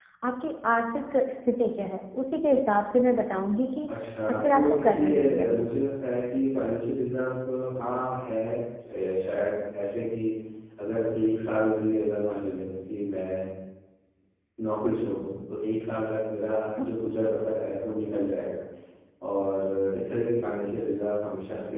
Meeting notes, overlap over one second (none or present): present